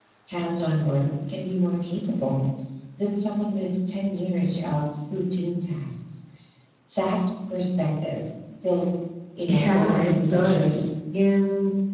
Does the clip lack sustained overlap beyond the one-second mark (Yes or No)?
No